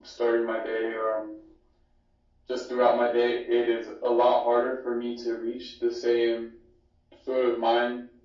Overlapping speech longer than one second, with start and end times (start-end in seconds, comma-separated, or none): none